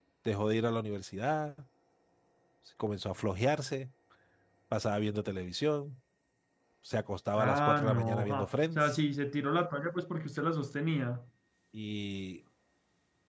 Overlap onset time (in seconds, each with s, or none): 7.4 s